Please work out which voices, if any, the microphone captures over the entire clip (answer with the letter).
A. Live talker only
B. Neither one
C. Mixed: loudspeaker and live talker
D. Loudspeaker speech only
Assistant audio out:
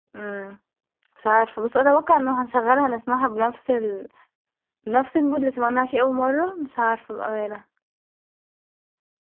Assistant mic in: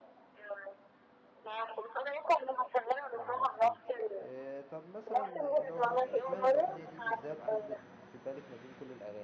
C